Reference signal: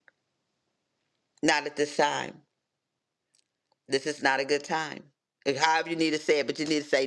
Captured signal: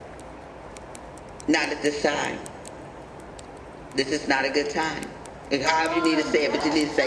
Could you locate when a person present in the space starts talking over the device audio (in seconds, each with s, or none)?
5.6 s